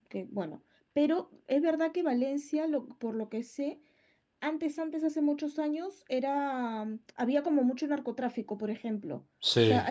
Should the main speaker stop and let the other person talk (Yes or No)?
No